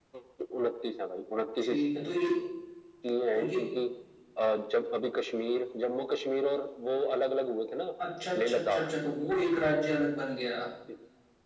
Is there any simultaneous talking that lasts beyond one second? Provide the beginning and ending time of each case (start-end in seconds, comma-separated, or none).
none